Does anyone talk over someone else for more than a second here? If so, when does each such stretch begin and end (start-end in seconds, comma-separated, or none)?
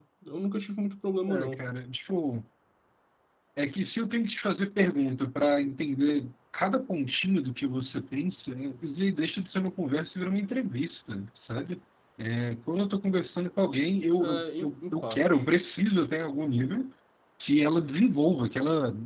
14.2-15.4